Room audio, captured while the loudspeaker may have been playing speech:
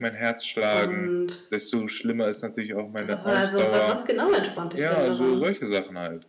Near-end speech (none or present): present